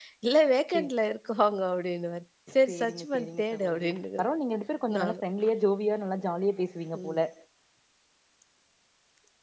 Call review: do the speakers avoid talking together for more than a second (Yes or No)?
No